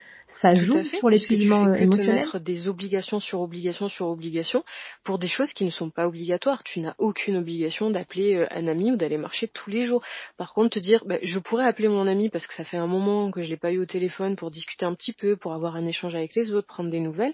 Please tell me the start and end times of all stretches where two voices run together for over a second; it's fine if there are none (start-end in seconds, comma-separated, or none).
0.5-2.3